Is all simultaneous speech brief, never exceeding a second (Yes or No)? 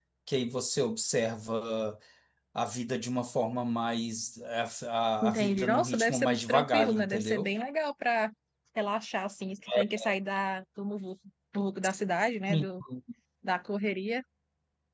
No